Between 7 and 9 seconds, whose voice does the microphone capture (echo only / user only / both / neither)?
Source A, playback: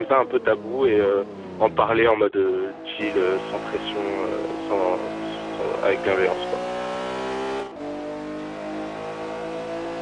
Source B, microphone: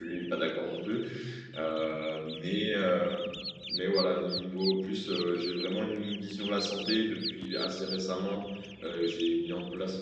user only